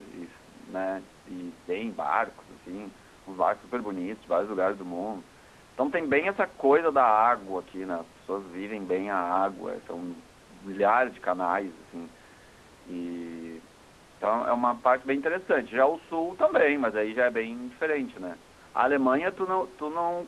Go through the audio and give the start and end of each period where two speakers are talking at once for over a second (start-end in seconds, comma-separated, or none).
none